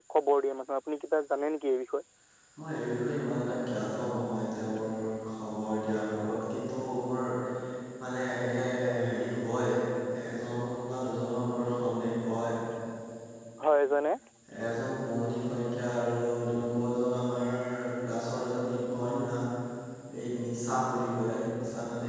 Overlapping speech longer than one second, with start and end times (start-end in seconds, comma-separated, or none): none